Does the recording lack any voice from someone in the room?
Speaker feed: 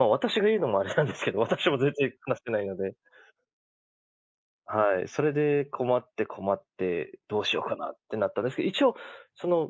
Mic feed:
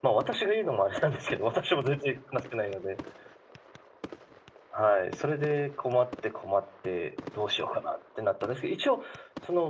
Yes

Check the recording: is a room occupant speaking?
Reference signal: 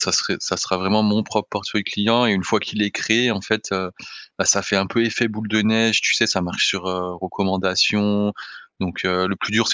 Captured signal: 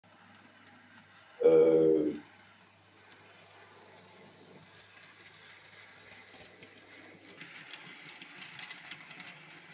Yes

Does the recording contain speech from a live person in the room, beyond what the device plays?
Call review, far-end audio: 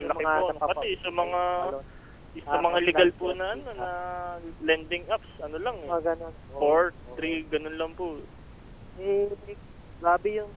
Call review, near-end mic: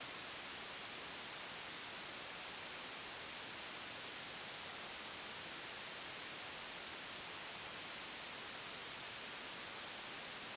No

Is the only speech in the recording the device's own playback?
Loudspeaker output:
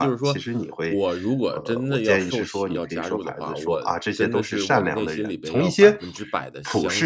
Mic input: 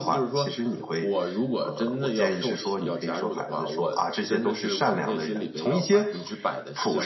Yes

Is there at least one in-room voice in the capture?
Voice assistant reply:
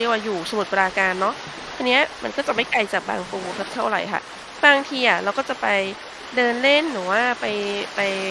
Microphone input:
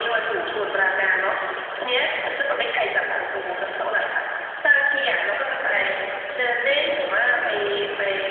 No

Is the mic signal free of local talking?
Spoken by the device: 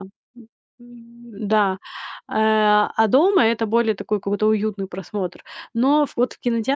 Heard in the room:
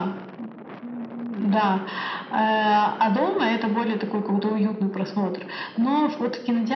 Yes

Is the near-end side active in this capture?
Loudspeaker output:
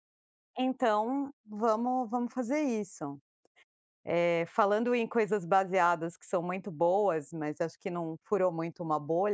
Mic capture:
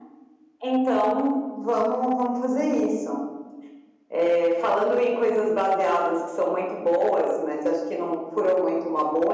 No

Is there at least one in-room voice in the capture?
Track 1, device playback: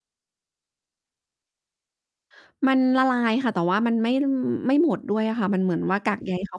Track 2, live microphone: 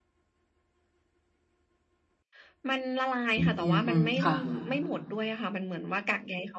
Yes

